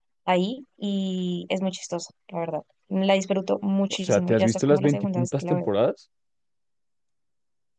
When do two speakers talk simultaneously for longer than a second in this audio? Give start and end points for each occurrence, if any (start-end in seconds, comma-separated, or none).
3.9-5.7